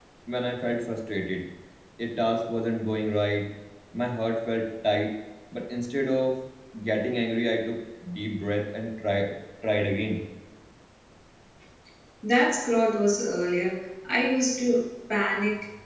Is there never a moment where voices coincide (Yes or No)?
Yes